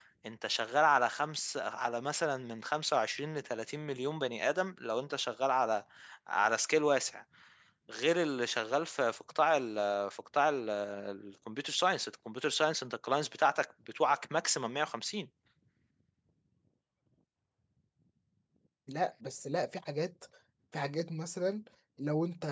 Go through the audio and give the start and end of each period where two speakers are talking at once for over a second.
none

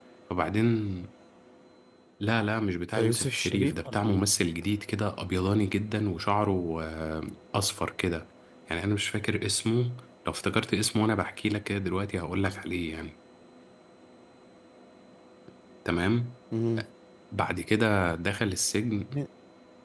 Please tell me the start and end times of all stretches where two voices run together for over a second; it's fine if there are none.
2.9-4.3

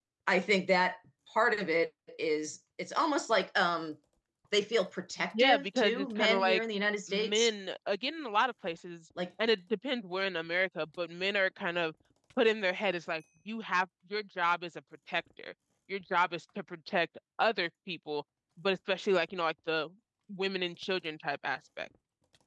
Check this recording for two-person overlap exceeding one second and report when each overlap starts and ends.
5.4-6.6

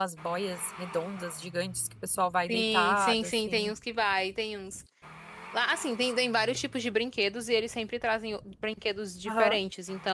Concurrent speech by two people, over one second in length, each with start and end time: 2.5-3.7

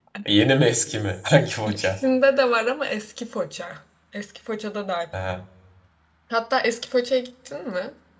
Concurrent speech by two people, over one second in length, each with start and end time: none

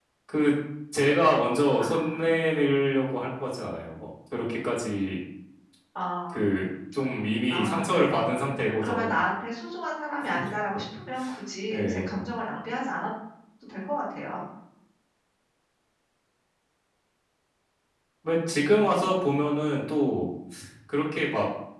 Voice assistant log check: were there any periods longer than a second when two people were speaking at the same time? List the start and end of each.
7.5-9.2

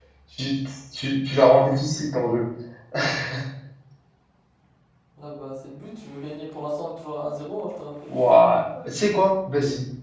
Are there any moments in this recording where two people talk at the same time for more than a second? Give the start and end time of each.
none

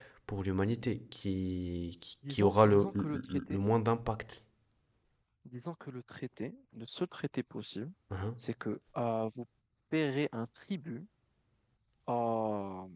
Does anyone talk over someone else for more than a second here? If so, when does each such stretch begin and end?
2.3-3.6

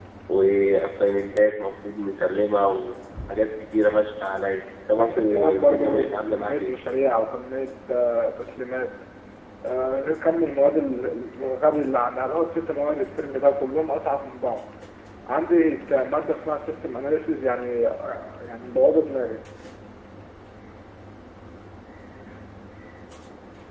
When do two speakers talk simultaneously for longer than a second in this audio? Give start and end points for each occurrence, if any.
5.0-6.8

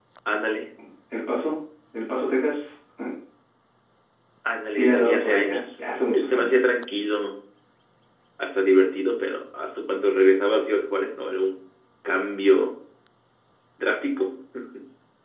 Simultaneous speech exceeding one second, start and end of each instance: 4.7-6.6

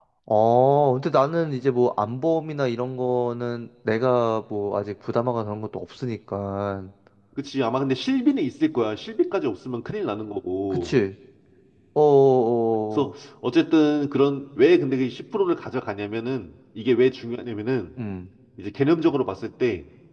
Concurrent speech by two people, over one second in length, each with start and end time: none

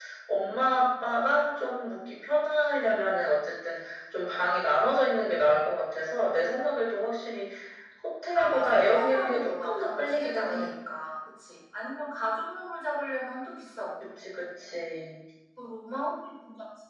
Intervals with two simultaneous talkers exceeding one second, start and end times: 8.3-10.7

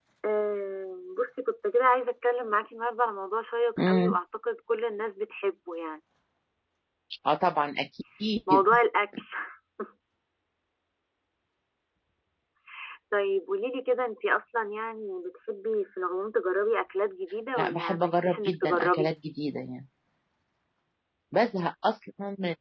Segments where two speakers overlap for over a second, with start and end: 17.6-19.1

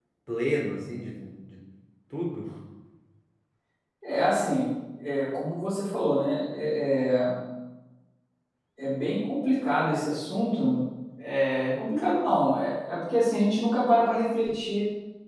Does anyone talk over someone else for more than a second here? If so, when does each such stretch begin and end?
none

